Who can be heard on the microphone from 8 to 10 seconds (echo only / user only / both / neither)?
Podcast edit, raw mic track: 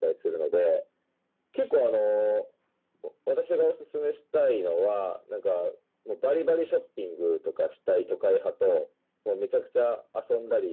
echo only